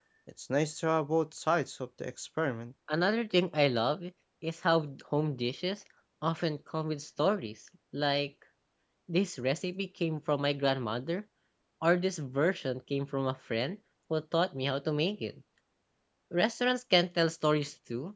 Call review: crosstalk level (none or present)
none